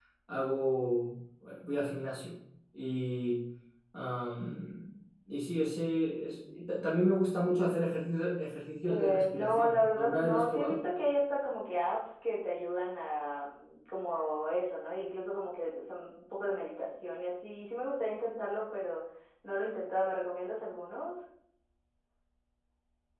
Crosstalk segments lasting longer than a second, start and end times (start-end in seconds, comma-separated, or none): 8.8-10.8